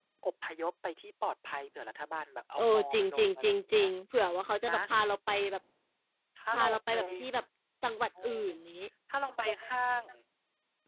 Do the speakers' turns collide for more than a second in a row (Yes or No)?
Yes